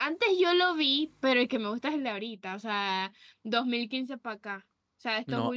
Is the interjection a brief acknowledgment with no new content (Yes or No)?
No